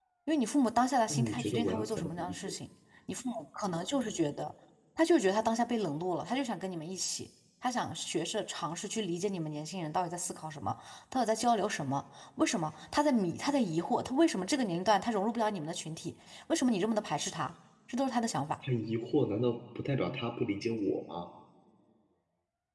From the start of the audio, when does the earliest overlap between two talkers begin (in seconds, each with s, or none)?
1.1 s